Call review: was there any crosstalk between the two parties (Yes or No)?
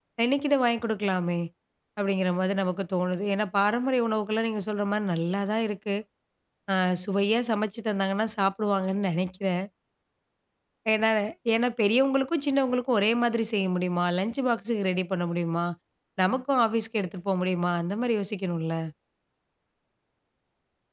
No